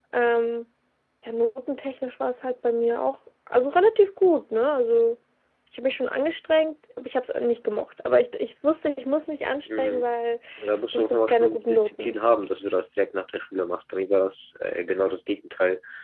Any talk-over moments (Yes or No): Yes